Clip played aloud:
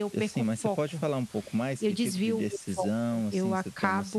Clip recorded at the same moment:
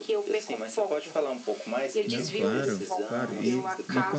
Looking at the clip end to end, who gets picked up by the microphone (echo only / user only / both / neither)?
both